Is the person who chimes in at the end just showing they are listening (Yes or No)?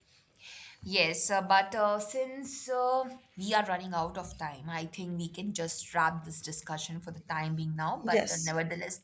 Yes